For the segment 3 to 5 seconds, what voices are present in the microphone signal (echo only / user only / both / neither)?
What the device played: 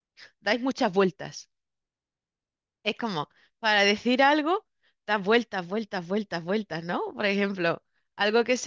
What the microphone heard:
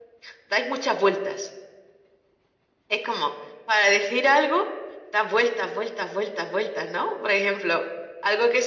echo only